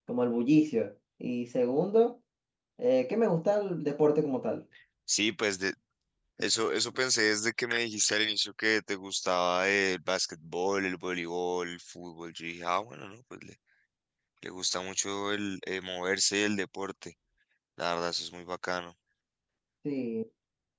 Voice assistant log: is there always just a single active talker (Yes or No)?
Yes